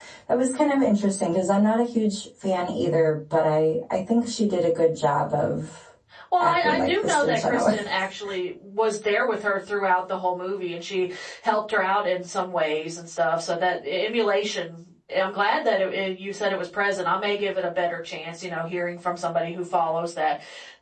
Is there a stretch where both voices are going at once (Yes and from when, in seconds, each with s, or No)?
Yes, from 6.4 s